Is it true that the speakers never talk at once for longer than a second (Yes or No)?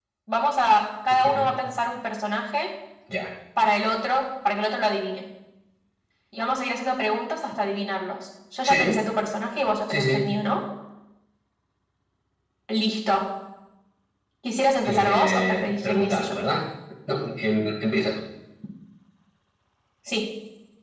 No